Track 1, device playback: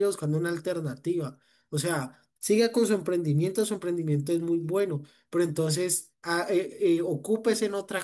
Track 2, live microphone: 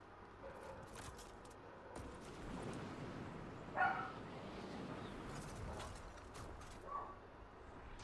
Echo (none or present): none